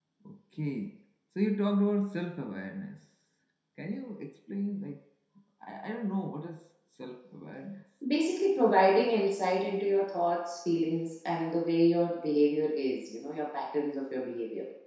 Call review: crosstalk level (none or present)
none